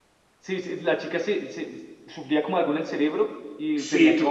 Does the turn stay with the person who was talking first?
No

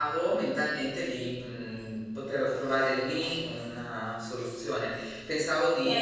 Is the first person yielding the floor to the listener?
Yes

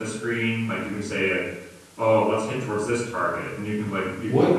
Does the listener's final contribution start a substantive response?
Yes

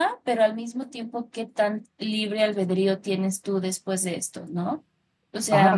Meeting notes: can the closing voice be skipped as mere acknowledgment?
No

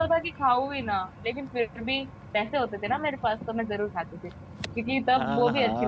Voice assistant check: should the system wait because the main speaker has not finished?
No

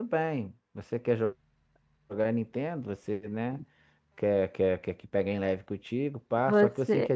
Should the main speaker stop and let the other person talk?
No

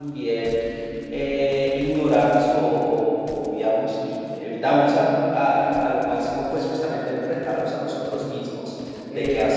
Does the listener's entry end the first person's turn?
No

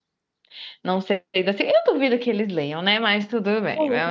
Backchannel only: No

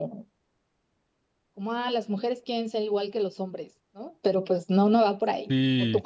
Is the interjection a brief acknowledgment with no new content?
No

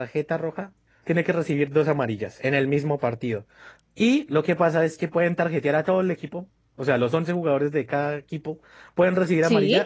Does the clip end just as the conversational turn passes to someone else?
No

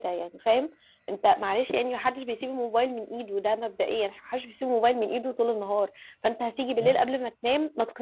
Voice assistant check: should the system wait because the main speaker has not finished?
Yes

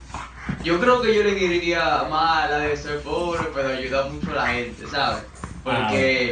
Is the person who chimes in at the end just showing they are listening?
Yes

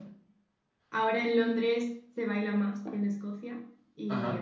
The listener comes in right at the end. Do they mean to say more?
No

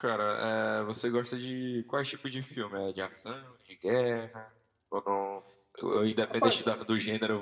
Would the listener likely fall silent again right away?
Yes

